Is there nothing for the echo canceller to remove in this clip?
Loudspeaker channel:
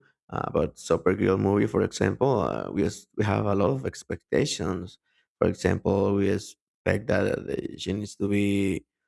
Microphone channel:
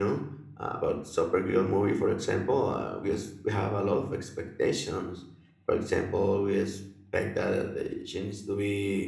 No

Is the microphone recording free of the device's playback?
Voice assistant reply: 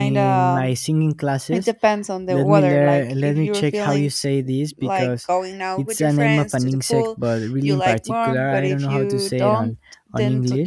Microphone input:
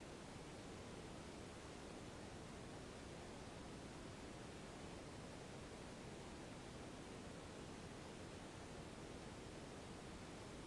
Yes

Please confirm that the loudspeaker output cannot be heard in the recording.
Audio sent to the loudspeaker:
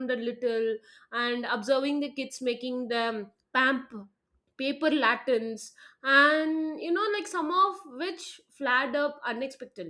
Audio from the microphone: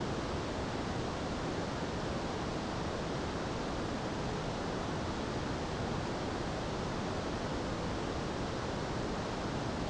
Yes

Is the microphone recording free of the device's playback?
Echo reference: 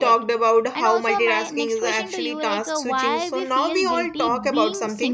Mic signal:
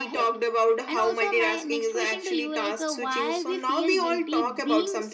No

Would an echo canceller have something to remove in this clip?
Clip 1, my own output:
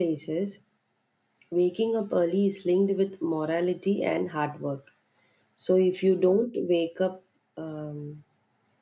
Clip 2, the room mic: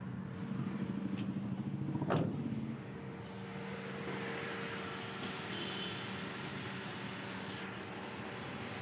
No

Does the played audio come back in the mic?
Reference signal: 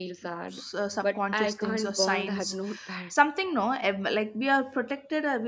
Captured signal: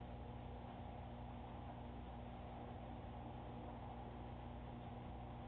No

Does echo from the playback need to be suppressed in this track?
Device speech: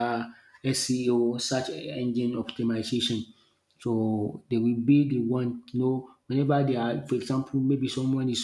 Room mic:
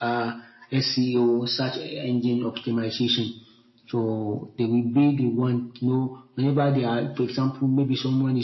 Yes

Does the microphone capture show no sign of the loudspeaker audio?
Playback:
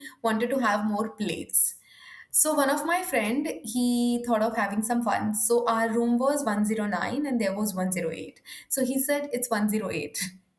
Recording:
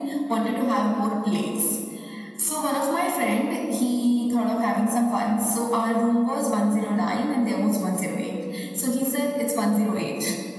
No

